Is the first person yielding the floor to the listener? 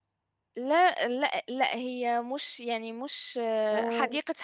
No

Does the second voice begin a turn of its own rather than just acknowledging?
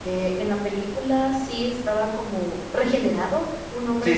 Yes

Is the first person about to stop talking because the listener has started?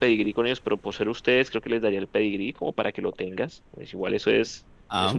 No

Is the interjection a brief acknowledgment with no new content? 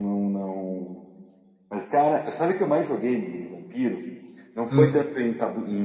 Yes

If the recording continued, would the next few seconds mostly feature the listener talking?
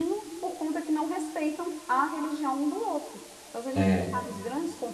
No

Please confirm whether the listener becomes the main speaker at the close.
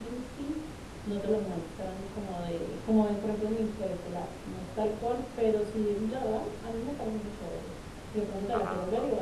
No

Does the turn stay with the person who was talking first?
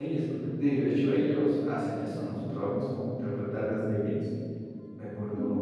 No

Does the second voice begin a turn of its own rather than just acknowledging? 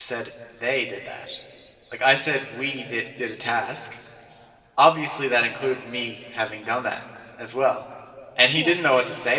No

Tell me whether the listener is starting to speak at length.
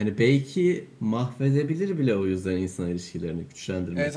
Yes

